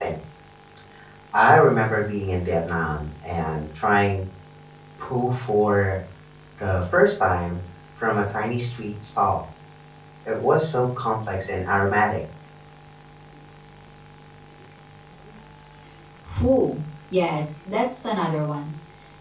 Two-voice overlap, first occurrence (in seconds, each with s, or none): none